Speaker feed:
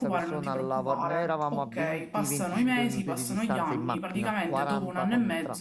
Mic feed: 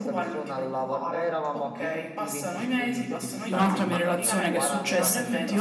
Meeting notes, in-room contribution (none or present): present